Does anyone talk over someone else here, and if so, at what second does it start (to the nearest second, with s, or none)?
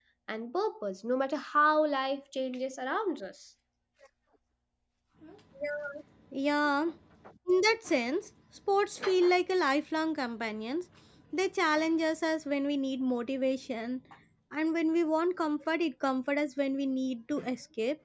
none